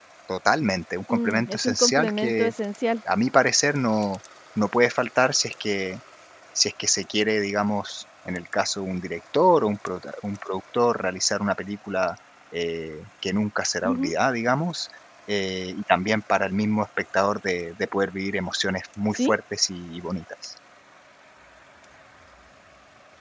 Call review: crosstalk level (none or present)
present